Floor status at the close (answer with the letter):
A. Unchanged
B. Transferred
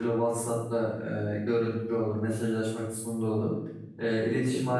A